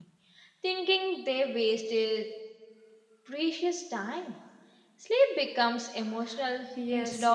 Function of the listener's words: taking over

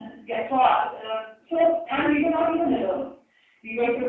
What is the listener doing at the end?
listening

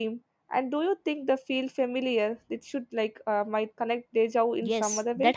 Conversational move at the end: taking over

